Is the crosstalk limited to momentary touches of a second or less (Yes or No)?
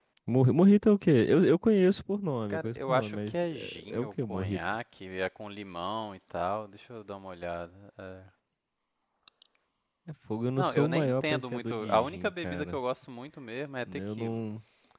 No